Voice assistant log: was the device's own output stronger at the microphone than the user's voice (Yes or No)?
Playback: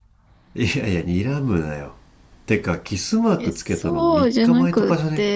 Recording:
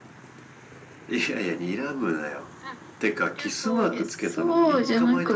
Yes